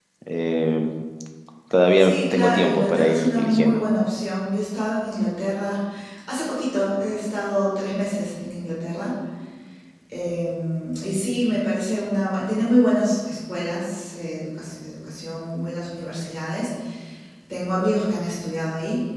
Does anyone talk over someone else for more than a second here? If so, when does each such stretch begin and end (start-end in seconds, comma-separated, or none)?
2.0-3.8